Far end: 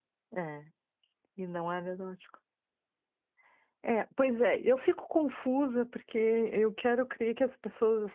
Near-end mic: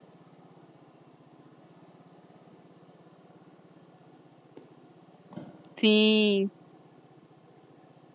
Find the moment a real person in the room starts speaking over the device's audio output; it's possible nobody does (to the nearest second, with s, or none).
6 s